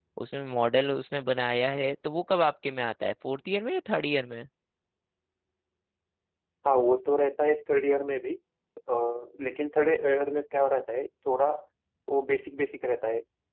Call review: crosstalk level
none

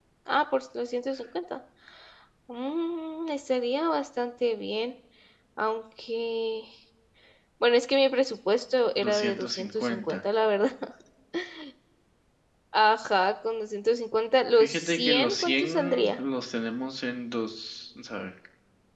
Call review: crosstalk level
present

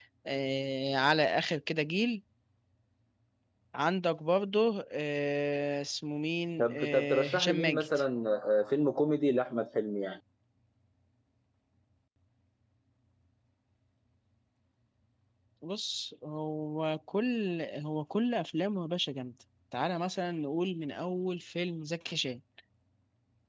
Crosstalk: present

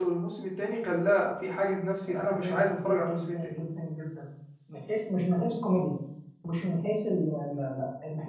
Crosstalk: present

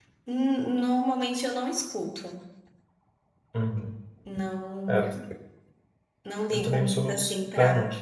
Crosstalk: present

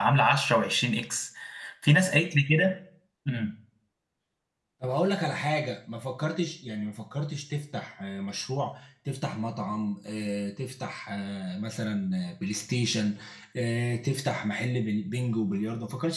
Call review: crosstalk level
none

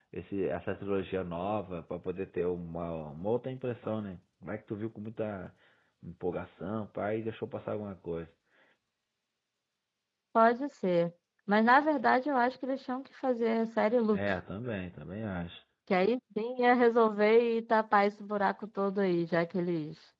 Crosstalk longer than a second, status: none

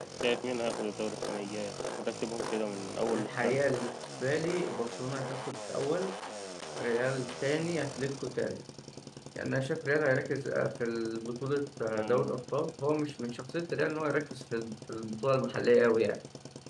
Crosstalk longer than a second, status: none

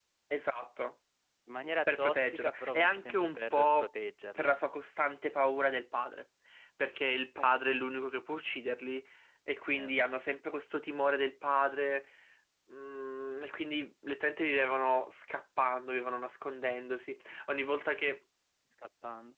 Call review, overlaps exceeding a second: present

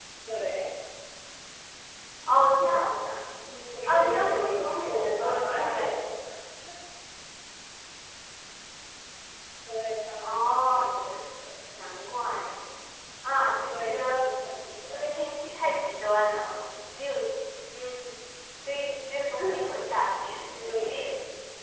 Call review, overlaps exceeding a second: present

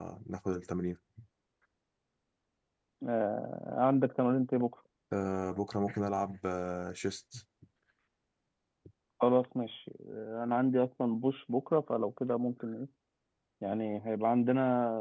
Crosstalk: none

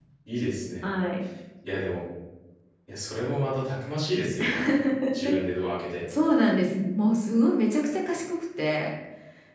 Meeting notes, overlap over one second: none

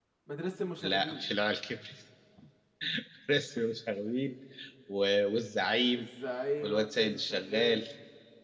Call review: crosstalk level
present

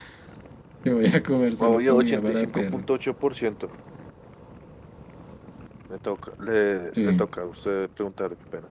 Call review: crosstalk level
present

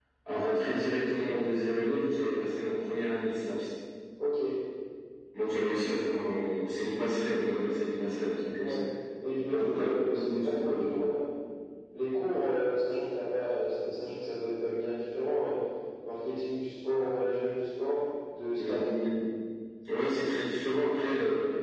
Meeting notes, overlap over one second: present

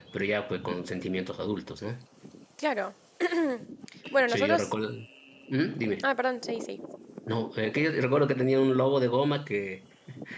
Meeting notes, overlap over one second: none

